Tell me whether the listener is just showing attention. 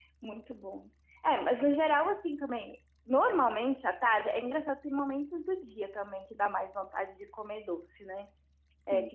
Yes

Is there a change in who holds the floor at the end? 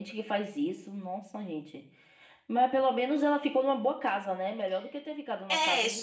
Yes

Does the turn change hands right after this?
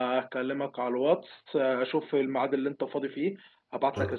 No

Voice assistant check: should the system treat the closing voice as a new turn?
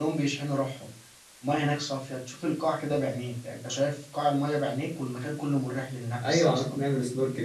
Yes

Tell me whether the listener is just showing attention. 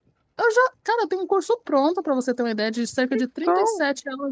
Yes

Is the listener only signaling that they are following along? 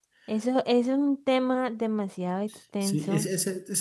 No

